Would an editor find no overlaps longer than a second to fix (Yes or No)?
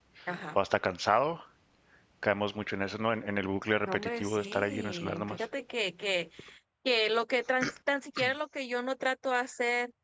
No